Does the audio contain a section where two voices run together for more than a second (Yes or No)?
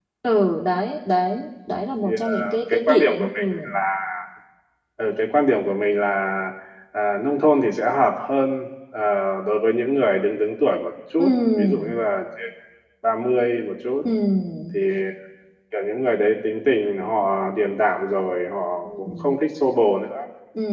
Yes